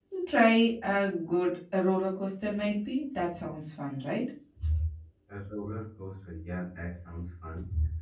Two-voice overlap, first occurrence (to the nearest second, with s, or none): none